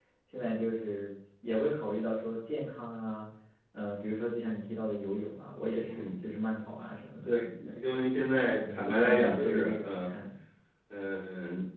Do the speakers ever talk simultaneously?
Yes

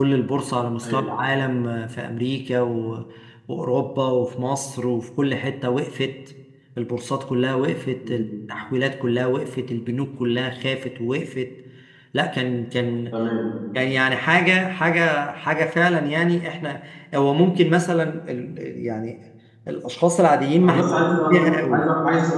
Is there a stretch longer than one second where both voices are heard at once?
Yes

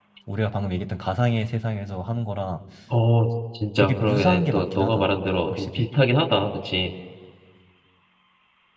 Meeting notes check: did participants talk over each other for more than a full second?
Yes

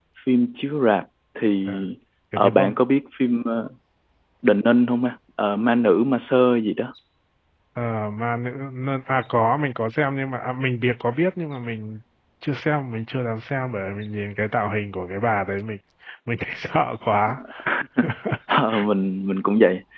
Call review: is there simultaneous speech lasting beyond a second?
No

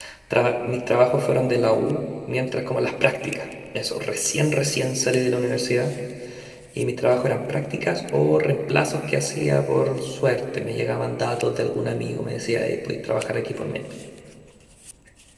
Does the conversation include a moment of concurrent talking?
No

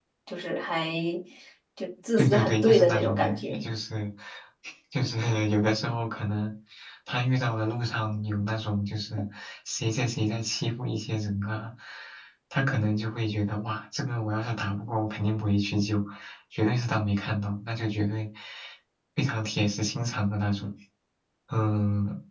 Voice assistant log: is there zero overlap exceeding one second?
No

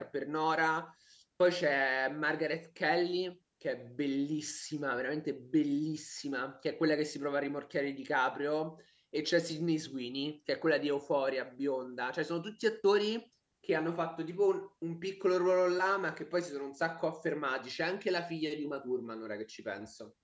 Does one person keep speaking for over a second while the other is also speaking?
No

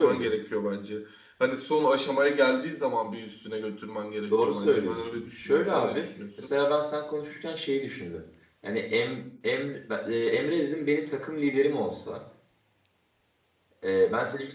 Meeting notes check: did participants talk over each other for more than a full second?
Yes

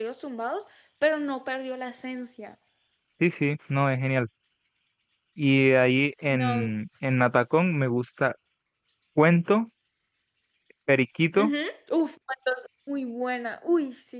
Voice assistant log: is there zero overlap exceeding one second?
Yes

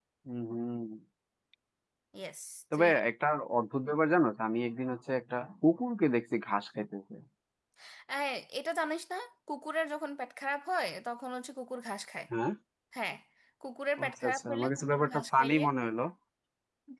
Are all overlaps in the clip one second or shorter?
No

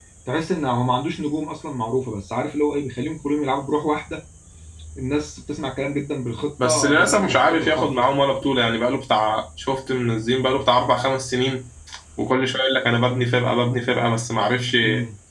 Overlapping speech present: Yes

